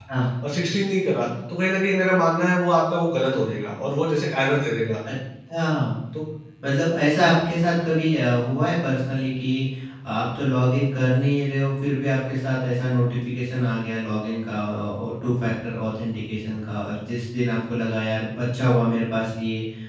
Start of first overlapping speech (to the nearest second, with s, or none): none